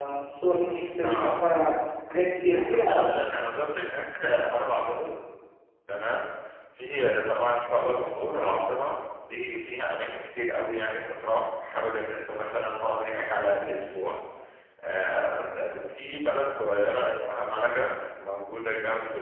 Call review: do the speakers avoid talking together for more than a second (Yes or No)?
Yes